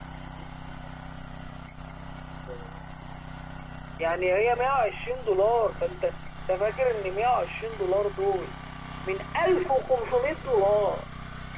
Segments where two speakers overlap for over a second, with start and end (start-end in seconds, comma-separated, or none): none